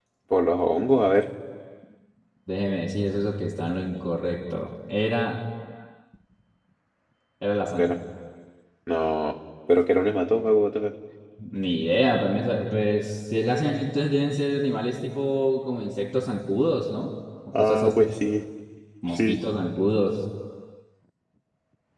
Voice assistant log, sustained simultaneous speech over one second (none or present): none